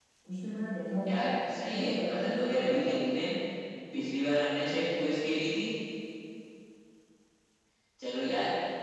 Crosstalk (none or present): present